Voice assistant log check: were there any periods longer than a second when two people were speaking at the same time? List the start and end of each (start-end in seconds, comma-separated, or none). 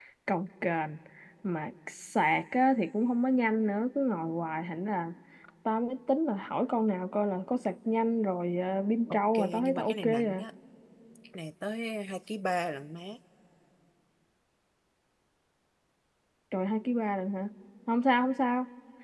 9.1-10.4